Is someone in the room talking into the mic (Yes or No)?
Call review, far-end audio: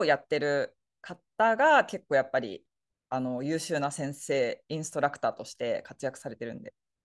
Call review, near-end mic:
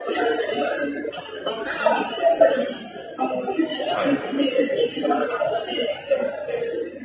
Yes